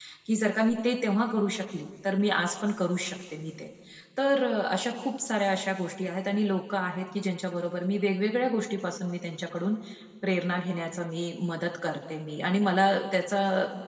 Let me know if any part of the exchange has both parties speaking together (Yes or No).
No